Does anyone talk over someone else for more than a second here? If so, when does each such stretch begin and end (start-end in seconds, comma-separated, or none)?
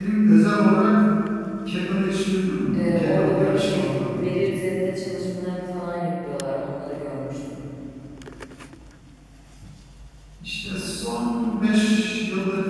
2.7-4.3